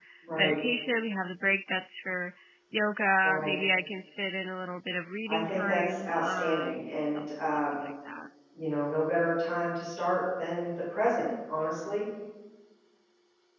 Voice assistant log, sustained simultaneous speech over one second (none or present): present